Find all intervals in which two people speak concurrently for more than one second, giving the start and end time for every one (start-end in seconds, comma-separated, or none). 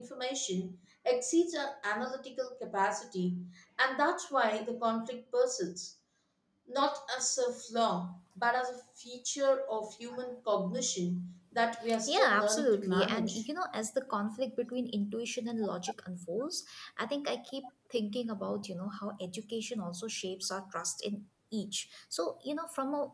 12.1-13.4